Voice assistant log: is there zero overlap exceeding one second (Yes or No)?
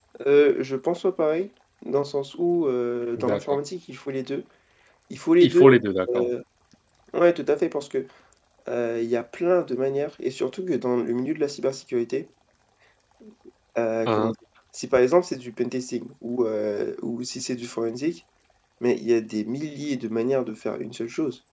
Yes